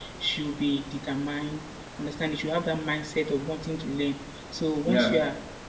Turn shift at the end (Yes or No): No